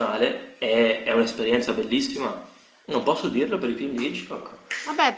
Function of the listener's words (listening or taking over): taking over